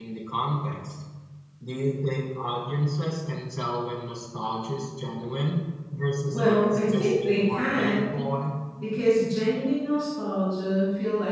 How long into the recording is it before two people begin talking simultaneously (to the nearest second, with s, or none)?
6 s